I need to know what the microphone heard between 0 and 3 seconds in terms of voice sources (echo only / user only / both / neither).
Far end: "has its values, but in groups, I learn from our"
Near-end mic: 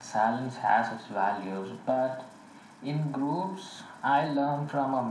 echo only